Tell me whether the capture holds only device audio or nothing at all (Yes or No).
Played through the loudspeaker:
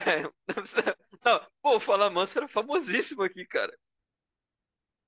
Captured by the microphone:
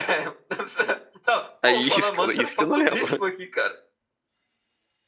No